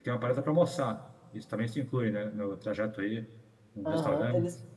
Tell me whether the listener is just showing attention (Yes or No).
No